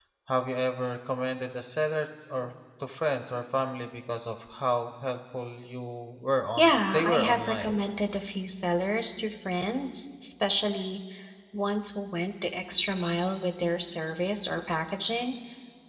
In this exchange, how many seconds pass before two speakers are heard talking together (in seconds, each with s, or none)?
6.6 s